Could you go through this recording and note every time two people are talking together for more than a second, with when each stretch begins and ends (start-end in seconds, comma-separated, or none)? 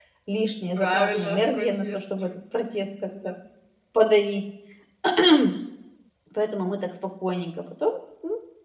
0.8-2.4